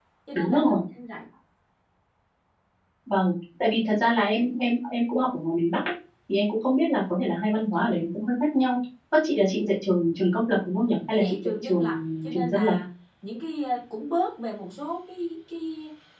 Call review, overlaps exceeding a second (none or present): present